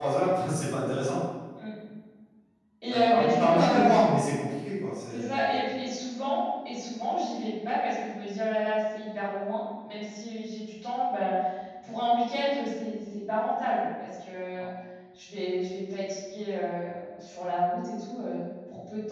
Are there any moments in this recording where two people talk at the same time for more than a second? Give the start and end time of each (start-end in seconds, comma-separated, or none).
2.9-4.2